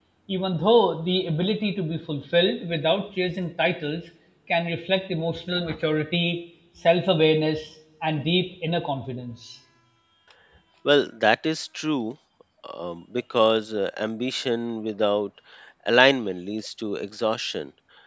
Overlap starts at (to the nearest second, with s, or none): none